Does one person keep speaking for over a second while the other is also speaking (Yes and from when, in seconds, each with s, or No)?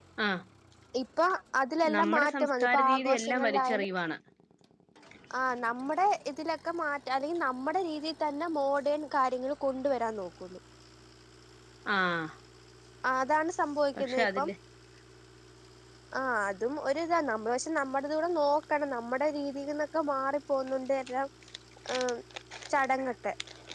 Yes, from 2.0 s